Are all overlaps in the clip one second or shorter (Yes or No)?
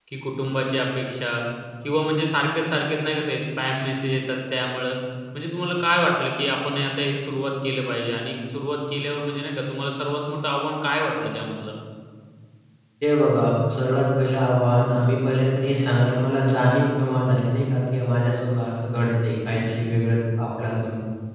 Yes